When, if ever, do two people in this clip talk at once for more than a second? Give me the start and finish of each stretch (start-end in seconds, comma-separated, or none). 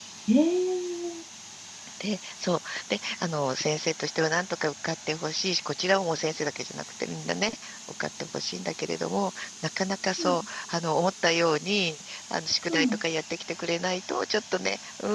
none